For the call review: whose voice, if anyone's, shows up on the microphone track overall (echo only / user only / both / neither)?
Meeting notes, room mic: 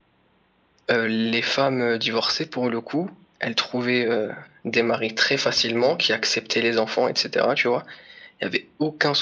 echo only